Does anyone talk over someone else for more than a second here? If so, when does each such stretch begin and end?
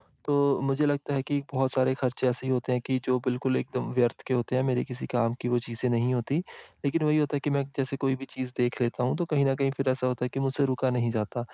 none

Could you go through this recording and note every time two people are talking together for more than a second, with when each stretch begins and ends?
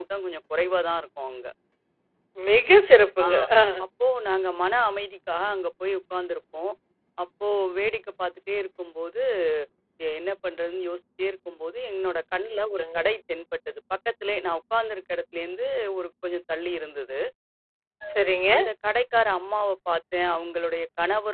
none

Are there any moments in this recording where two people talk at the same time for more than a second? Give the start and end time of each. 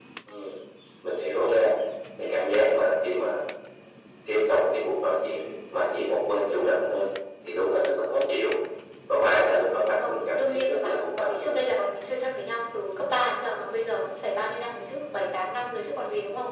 10.0-11.6

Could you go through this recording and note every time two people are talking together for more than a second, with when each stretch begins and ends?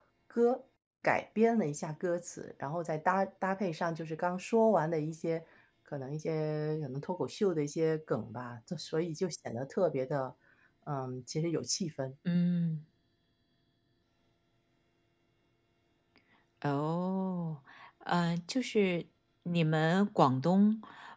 none

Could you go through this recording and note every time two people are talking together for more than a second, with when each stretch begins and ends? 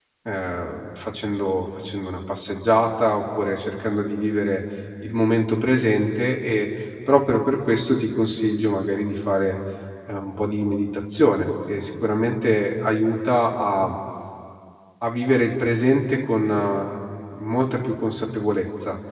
none

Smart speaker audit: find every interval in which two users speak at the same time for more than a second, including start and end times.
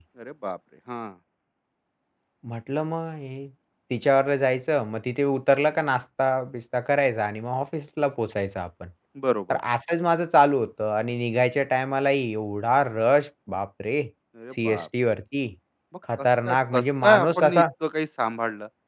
16.2-17.6

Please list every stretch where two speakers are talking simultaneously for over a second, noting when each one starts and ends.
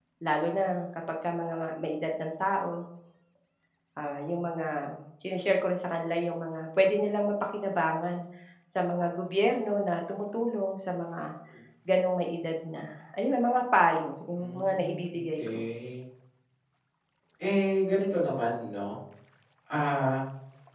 14.4-15.7

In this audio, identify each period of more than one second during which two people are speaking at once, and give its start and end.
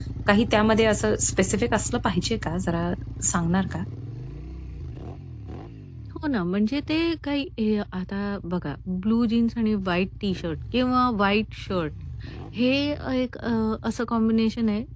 none

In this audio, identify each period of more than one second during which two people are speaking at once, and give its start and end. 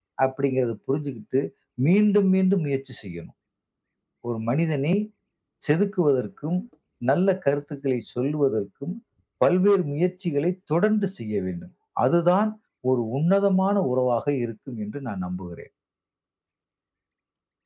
none

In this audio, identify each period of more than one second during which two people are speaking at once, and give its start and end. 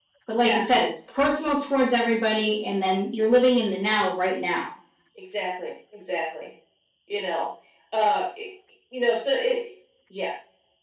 none

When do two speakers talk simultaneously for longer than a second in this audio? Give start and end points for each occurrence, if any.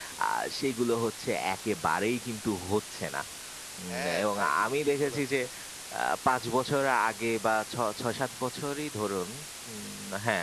3.9-5.2

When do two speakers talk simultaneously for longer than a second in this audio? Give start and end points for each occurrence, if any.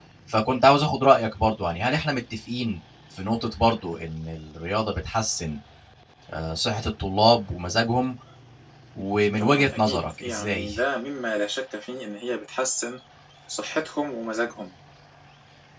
9.4-10.7

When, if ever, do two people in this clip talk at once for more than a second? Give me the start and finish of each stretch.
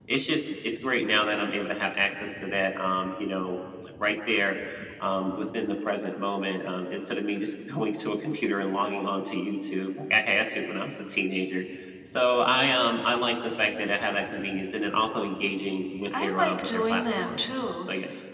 16.2-17.4

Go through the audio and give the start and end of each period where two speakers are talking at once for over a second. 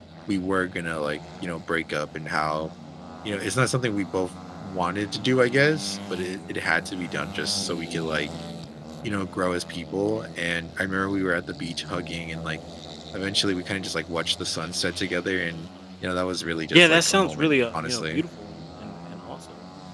16.7-18.2

